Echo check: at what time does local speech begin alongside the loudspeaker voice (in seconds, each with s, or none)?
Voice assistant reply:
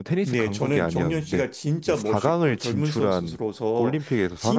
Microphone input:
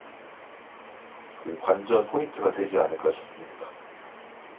1.4 s